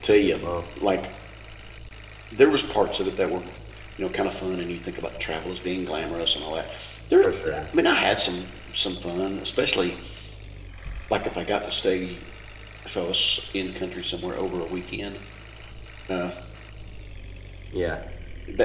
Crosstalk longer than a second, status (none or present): none